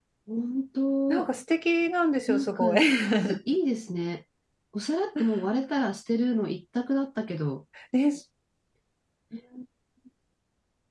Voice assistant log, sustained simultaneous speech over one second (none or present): none